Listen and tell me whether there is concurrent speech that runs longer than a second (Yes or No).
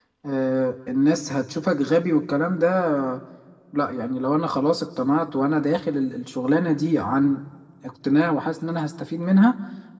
No